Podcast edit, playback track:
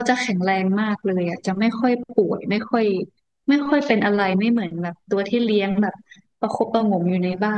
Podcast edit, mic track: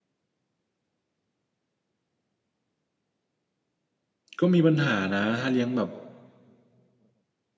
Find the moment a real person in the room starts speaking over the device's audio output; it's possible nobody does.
4.4 s

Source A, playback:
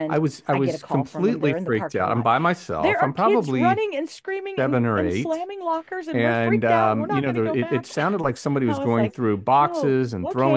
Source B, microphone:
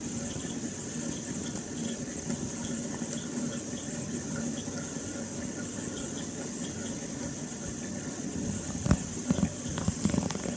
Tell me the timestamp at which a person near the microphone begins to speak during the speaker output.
none

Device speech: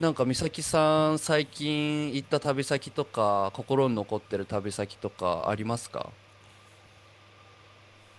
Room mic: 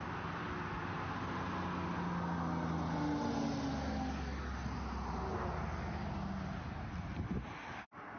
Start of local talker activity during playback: none

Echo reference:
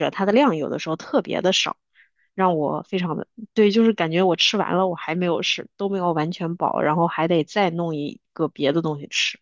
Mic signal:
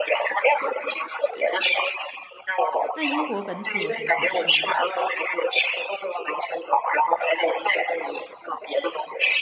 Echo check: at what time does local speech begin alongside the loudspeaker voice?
2.9 s

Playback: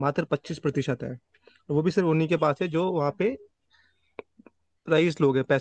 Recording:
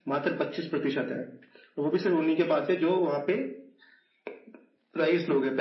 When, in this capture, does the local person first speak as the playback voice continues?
none

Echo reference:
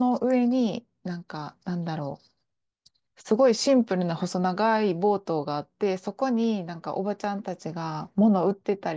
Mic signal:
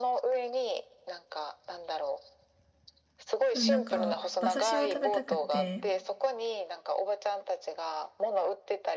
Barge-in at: 3.5 s

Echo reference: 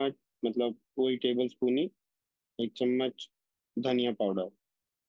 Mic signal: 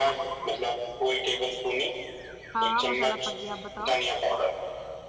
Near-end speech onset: 2.5 s

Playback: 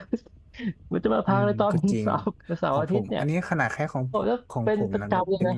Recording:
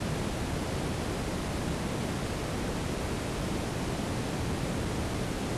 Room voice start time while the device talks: none

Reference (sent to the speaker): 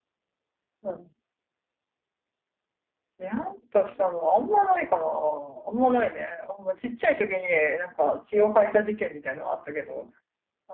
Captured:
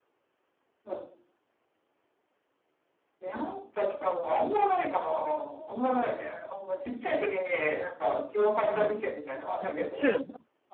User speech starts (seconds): 8.7 s

